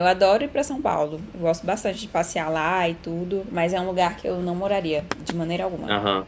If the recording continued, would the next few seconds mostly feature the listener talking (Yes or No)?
Yes